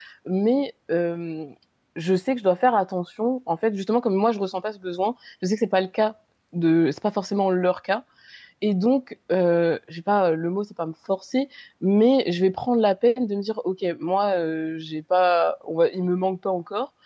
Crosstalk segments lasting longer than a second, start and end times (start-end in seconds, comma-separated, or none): none